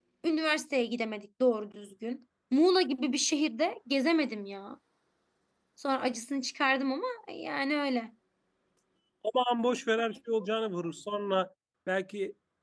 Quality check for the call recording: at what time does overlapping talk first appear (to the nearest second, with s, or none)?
none